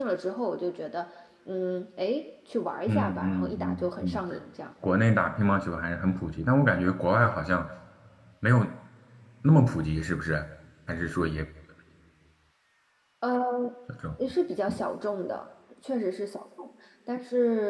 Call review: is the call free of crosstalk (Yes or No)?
No